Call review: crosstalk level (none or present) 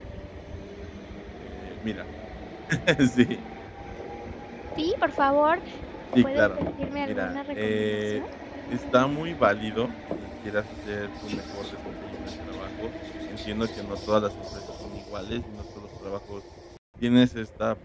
present